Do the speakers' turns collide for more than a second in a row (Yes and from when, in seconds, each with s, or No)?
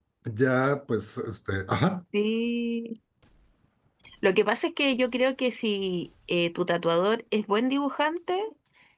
No